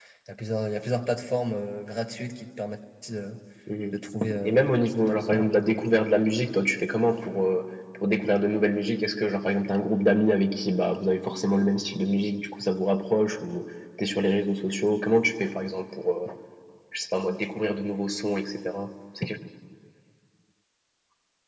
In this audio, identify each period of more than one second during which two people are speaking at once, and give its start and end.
4.4-6.0

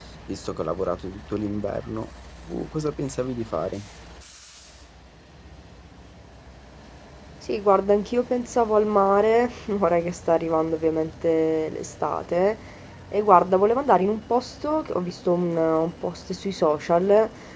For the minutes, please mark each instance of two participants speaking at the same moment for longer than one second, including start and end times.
none

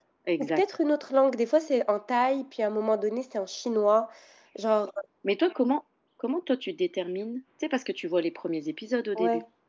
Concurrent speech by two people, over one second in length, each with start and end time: none

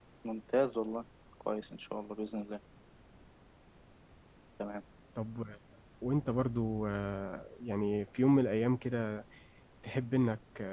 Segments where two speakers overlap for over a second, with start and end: none

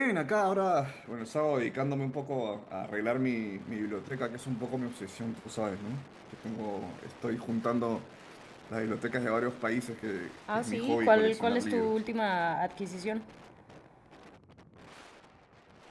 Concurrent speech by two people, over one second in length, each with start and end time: 10.5-11.9

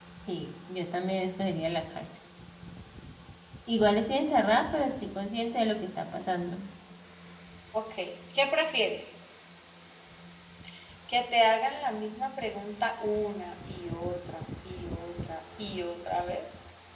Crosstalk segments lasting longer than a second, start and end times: none

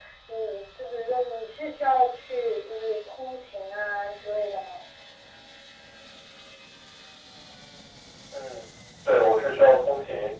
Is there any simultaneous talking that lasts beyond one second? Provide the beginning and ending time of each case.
none

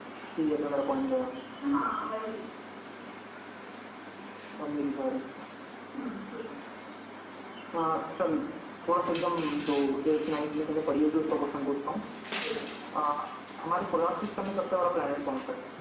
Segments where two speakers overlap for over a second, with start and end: none

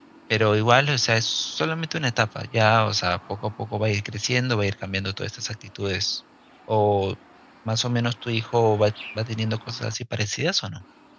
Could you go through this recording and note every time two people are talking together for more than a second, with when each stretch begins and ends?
none

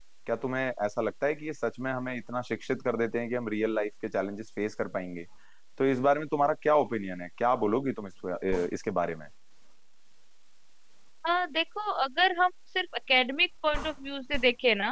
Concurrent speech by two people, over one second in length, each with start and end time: none

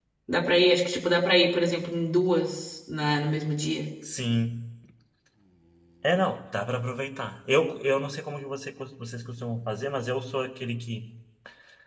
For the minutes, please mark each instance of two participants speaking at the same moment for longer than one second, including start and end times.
none

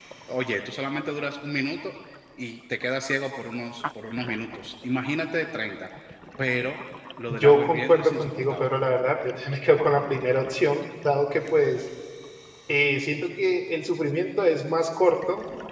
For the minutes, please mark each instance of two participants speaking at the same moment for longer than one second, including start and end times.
7.3-8.8

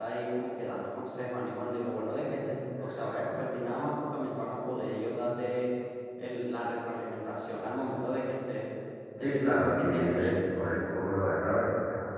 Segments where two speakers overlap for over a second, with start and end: 9.2-10.4

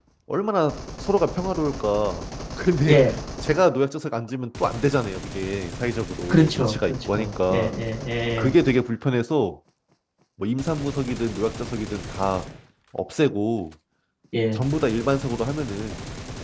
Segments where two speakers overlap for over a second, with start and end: 6.3-7.7

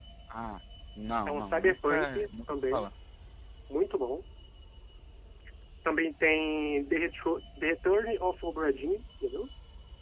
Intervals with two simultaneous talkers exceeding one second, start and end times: 1.3-2.9

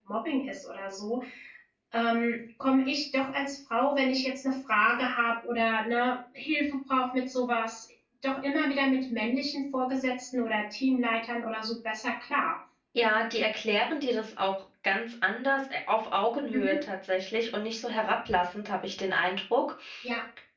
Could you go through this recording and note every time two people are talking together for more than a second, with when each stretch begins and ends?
none

